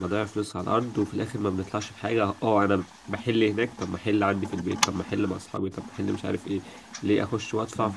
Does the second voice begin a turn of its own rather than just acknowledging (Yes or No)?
No